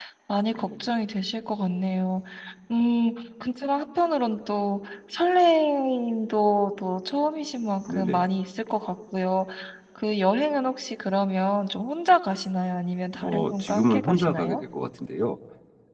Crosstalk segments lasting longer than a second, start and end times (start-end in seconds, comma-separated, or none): 13.2-14.6